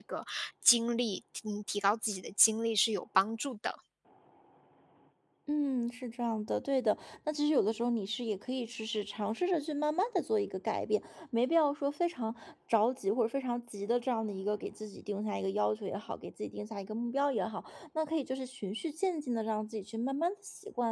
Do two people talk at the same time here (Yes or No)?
No